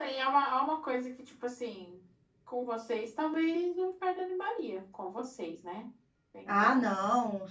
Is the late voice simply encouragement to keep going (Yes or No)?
No